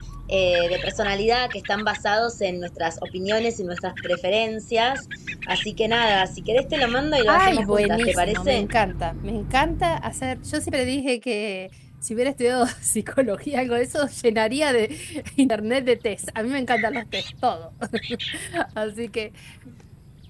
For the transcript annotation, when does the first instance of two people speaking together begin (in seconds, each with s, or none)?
7.3 s